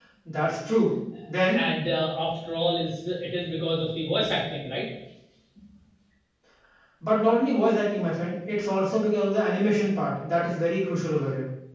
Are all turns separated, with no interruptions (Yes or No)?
Yes